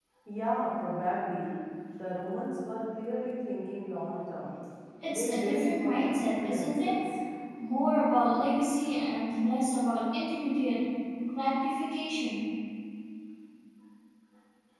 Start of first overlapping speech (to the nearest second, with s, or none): 5 s